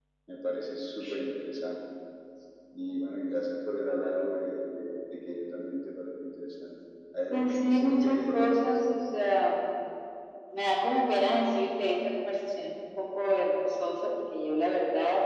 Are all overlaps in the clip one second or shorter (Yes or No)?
No